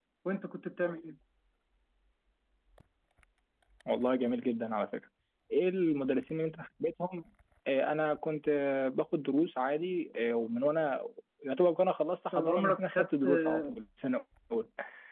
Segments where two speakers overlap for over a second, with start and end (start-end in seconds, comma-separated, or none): 12.3-13.7